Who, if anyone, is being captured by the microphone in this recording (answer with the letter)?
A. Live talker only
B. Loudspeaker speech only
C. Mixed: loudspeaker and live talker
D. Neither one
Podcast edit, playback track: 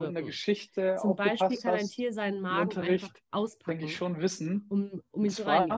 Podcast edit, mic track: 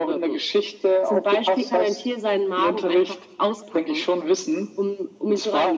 B